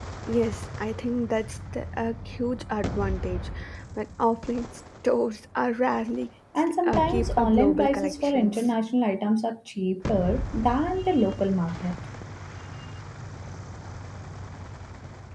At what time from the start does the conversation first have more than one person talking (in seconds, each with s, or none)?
6.8 s